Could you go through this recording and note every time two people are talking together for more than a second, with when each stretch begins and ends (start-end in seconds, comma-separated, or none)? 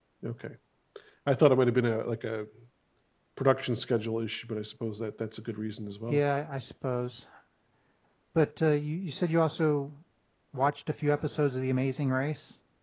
none